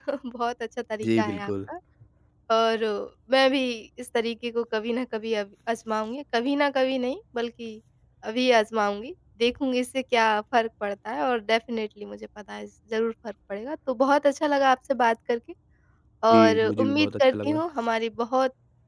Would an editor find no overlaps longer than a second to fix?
No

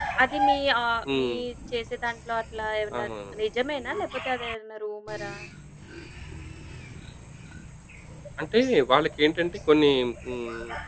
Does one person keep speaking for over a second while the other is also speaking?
No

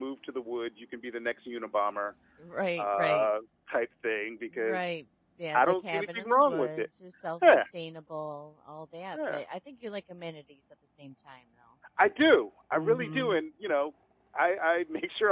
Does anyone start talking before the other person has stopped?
Yes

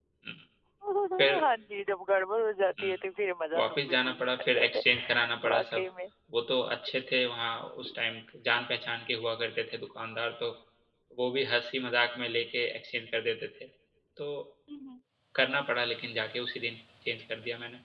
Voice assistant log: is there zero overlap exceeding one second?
No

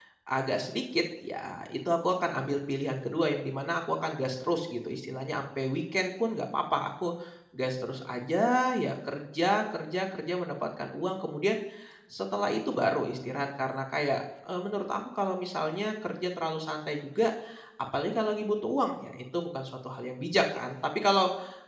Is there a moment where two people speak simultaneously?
No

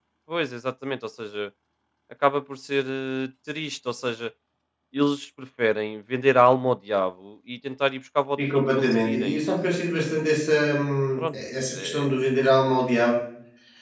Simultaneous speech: Yes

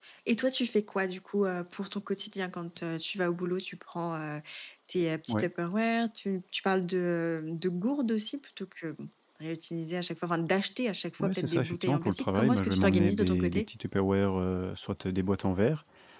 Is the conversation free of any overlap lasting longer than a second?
No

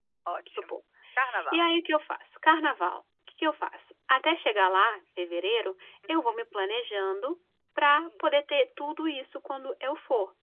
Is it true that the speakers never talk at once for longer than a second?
Yes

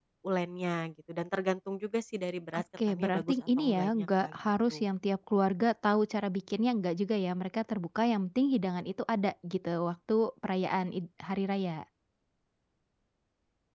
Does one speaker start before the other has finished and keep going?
Yes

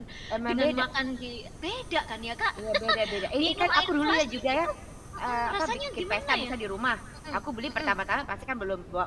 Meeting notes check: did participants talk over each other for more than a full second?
Yes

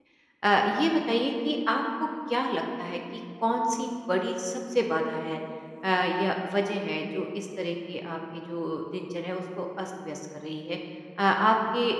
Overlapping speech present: No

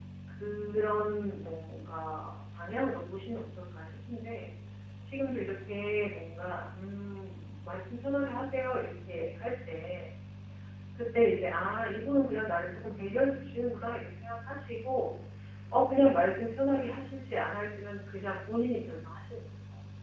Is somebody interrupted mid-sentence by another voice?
No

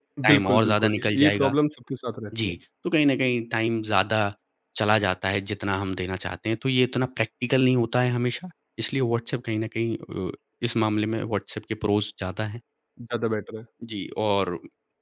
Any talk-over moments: Yes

